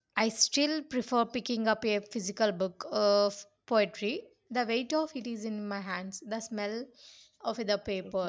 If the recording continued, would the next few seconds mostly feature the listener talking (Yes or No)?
No